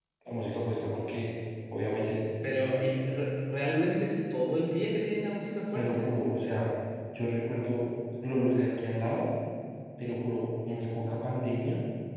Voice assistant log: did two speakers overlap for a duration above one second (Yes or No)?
No